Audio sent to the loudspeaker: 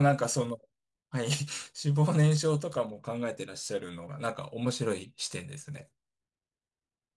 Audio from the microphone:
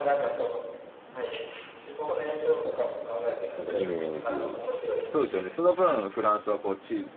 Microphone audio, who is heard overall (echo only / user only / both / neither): both